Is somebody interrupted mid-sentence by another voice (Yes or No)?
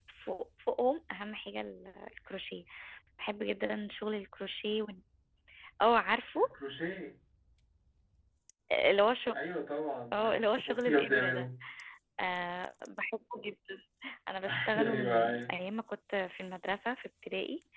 Yes